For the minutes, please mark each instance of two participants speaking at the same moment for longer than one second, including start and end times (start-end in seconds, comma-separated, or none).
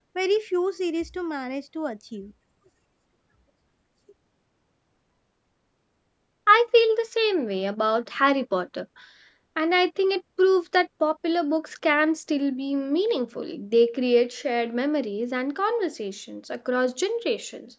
none